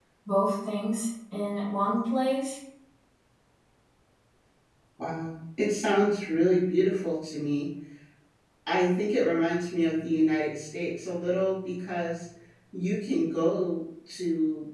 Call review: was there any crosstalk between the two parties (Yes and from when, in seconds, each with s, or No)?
No